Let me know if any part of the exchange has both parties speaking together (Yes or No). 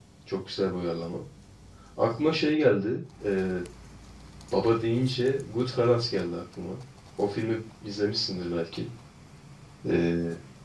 No